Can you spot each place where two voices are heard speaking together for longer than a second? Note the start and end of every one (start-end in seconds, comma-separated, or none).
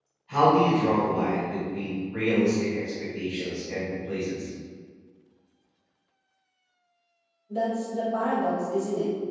none